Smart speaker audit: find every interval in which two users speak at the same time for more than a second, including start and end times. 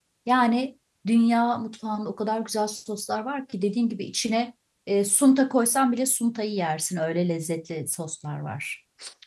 none

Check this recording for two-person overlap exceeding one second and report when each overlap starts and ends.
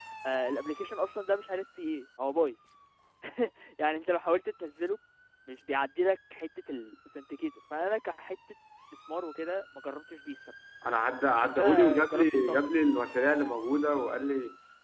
11.4-12.7

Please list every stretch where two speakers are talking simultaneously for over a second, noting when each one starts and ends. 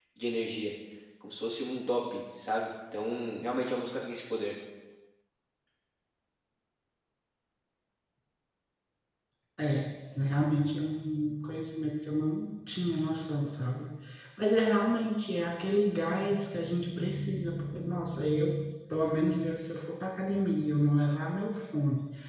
none

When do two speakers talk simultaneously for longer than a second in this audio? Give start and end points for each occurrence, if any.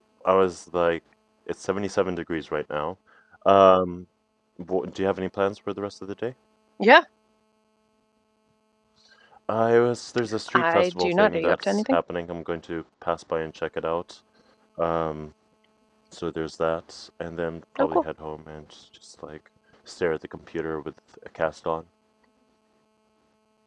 10.5-12.0

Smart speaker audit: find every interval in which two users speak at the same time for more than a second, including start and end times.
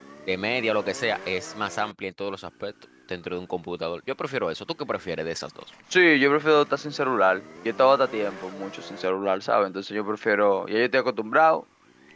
none

